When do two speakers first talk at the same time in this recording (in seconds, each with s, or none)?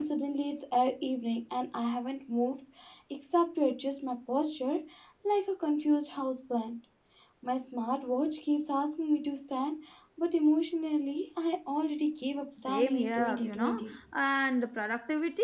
12.6 s